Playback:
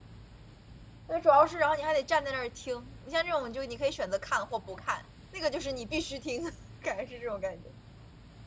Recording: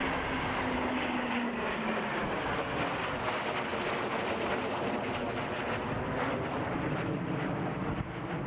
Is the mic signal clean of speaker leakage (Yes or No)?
Yes